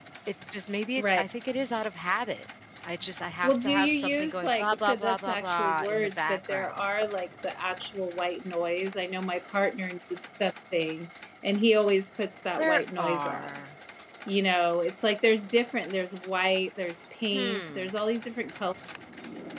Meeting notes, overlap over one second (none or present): present